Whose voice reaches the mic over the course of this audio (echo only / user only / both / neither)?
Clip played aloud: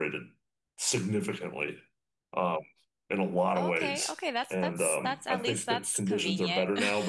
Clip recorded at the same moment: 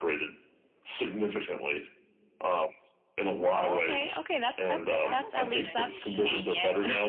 both